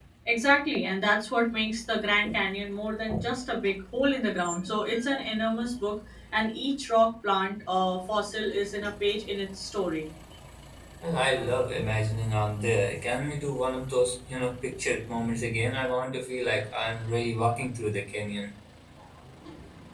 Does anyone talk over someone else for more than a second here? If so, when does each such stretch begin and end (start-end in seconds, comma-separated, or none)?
none